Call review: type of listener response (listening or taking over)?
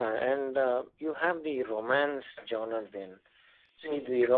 listening